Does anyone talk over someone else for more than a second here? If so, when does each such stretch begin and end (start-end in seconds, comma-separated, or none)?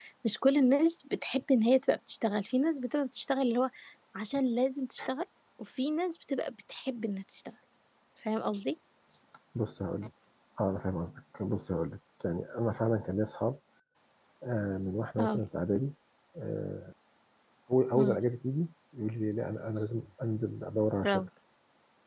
none